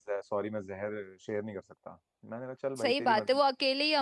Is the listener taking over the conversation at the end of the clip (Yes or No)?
Yes